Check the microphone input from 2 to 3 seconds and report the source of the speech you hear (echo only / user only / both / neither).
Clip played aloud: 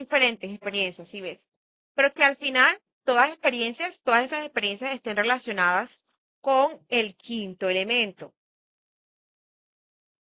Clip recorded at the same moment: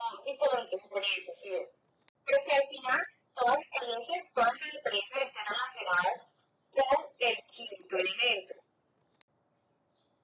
echo only